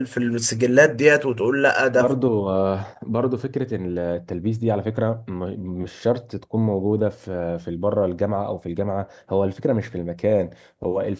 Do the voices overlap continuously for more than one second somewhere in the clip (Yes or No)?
No